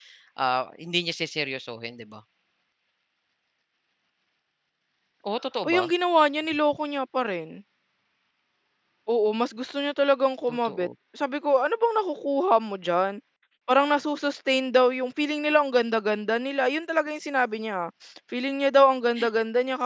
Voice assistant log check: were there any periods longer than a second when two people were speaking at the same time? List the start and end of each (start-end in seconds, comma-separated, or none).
none